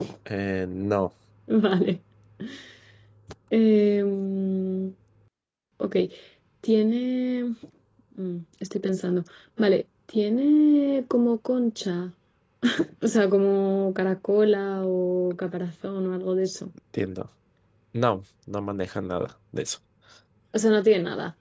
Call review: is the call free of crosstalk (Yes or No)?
Yes